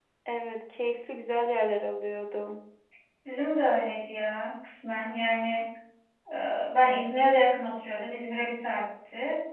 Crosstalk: none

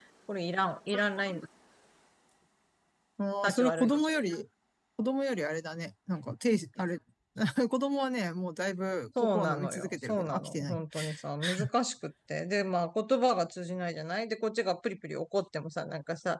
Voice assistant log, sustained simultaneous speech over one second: present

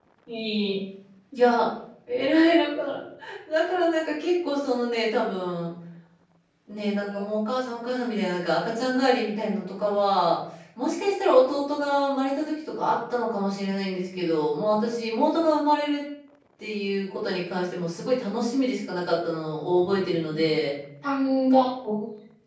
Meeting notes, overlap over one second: none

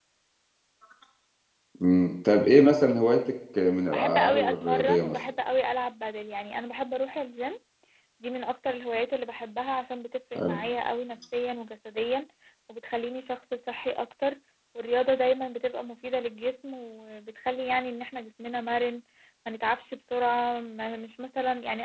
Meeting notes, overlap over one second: present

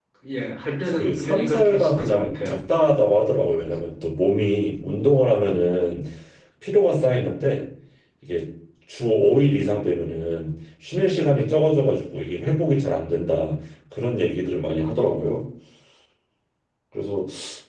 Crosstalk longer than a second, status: present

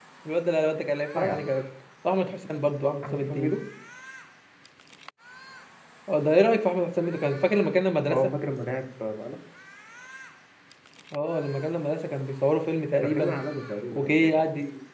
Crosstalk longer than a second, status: none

